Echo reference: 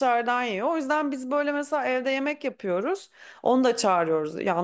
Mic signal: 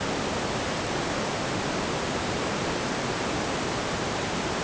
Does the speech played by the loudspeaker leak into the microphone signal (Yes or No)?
No